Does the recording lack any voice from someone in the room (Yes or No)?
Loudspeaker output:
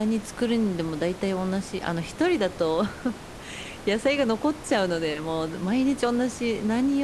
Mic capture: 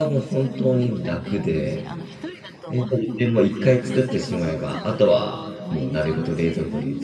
No